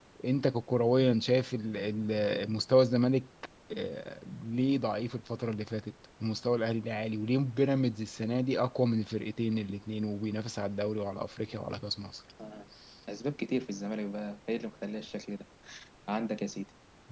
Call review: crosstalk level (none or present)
none